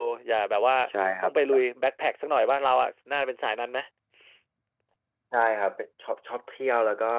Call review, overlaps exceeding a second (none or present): none